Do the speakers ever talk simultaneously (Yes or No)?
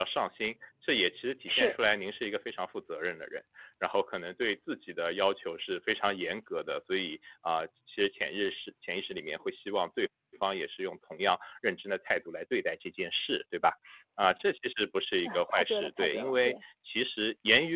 Yes